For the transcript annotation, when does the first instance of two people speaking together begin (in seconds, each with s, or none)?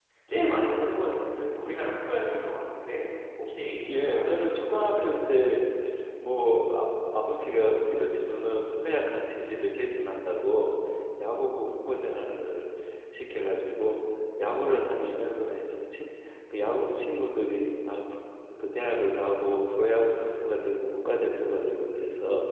3.9 s